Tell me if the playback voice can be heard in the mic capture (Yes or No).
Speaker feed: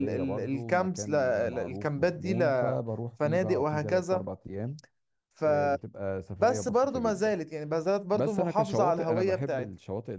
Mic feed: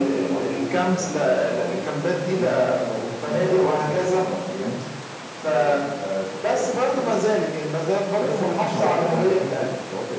Yes